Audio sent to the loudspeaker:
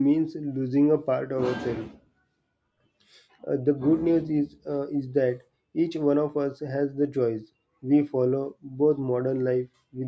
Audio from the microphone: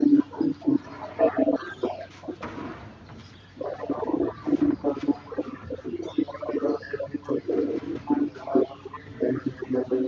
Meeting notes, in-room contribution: none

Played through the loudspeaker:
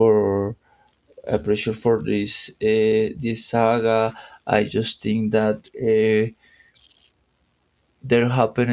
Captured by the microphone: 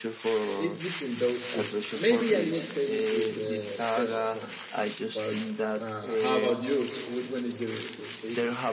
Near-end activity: present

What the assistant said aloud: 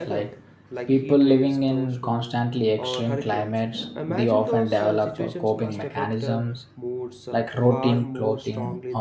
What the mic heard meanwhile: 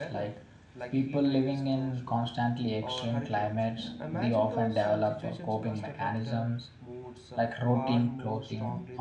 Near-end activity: none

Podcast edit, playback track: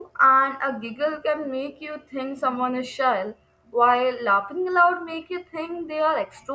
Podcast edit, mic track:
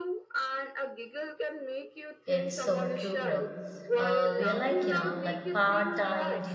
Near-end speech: present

